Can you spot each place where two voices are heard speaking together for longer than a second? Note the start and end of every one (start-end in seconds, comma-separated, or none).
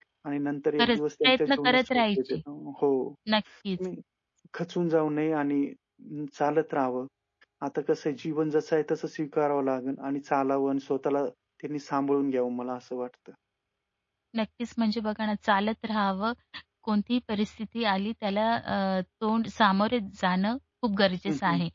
0.8-2.4